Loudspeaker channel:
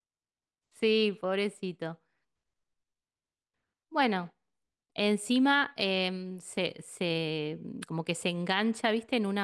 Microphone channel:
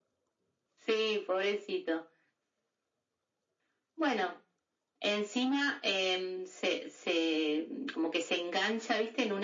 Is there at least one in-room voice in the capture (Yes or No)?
No